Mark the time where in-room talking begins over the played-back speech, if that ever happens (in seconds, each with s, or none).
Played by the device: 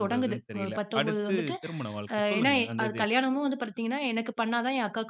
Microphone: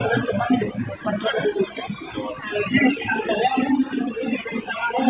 none